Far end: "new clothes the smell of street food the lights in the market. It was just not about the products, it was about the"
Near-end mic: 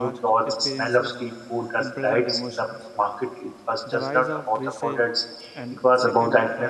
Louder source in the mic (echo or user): echo